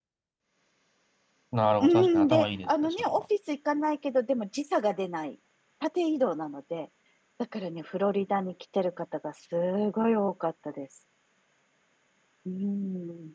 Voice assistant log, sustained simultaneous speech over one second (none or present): present